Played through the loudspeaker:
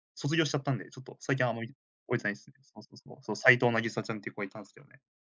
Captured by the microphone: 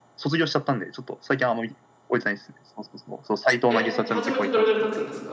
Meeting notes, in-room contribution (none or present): present